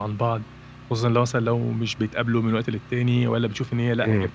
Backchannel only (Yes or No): Yes